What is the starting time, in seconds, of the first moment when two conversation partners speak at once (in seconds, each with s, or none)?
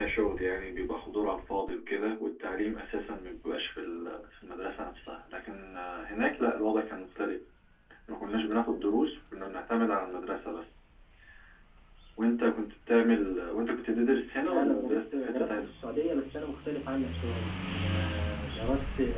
14.5 s